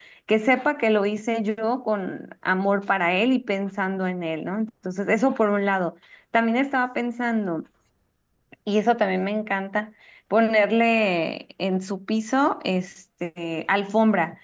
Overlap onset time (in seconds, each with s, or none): none